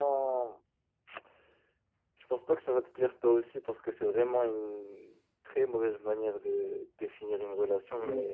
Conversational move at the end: taking over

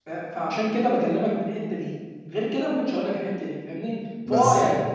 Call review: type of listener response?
listening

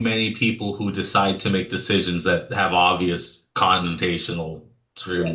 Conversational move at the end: taking over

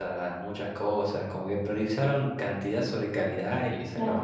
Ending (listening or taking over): taking over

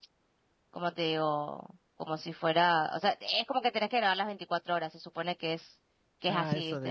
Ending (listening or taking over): taking over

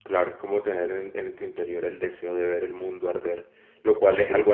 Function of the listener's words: listening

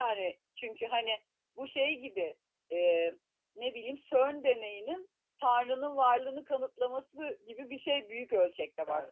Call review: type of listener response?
taking over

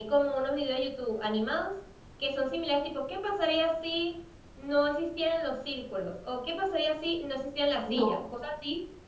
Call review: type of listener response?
listening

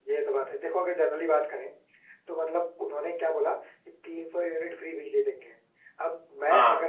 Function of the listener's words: listening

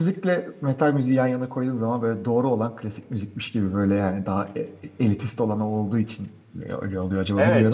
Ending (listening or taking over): taking over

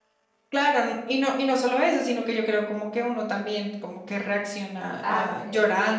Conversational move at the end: taking over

